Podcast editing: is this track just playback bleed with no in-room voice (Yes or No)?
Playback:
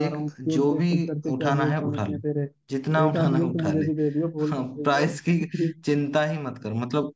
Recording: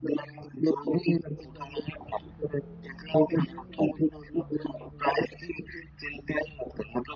Yes